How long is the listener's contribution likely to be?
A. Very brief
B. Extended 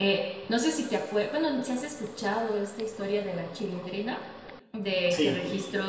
A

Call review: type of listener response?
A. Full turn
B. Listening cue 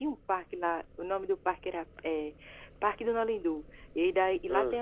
B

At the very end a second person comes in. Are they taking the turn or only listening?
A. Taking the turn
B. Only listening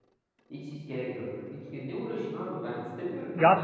A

